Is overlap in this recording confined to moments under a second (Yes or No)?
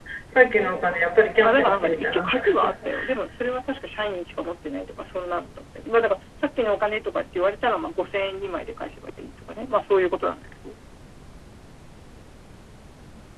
No